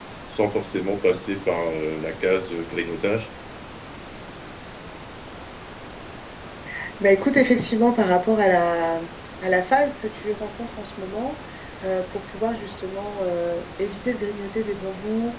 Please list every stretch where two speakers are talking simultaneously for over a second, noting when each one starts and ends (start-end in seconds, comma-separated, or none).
none